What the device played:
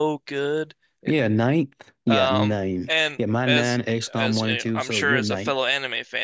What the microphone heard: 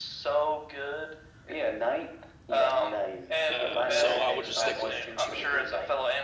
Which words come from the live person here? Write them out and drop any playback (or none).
Uh, so I would just stick with two.